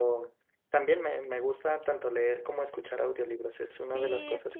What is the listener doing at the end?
taking over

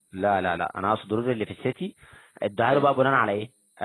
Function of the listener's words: listening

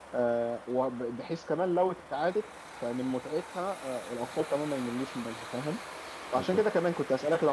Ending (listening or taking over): listening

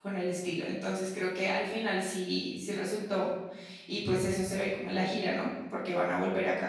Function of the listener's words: listening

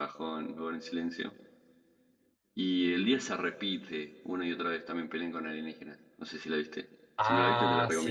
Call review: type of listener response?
taking over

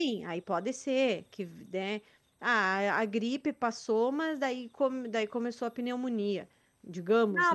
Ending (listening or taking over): taking over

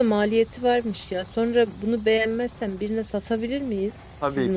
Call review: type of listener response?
taking over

